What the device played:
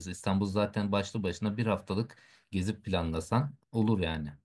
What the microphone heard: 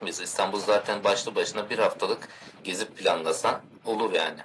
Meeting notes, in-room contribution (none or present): none